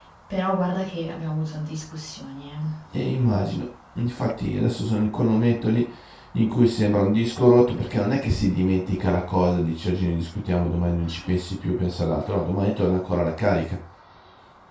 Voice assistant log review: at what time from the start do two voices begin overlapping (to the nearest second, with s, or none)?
none